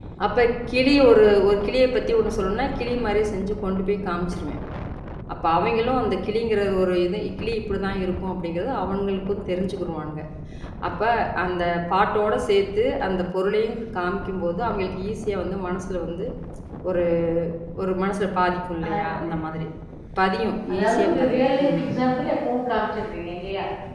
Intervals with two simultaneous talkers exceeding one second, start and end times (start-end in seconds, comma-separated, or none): 20.7-22.0